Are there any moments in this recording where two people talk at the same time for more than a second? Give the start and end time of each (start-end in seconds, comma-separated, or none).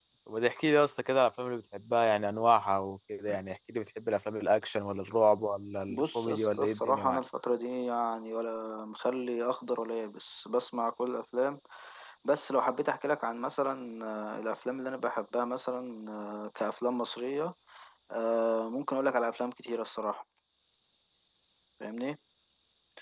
5.9-7.2